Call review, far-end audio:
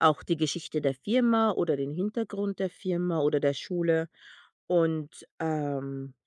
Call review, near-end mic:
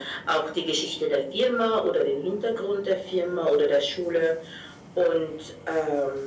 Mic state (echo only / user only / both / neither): echo only